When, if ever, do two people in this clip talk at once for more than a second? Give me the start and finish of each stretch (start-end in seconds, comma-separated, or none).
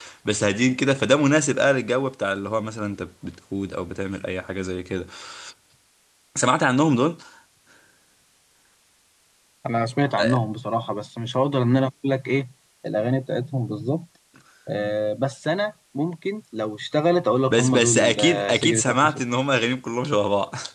17.5-19.1